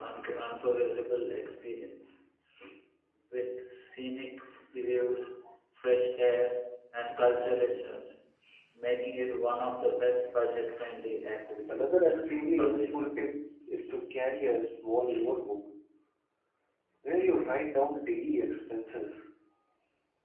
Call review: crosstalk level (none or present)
present